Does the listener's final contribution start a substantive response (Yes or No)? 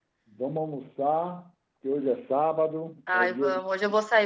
Yes